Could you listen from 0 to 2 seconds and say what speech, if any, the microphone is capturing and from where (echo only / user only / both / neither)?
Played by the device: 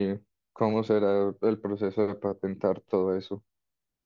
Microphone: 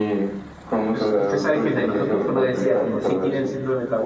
both